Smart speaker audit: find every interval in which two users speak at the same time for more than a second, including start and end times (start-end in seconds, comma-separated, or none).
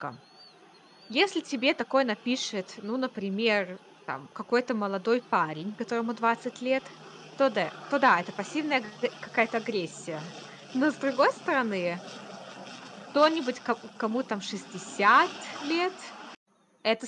none